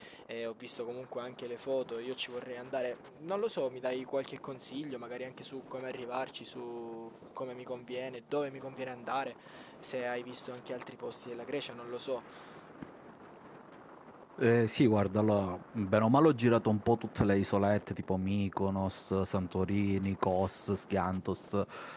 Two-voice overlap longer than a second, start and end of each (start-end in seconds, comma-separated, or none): none